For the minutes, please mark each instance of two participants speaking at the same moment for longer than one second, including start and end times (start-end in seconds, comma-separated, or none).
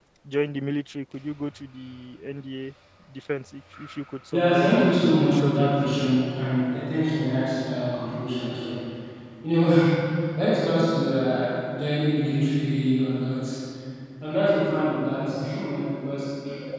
4.3-5.7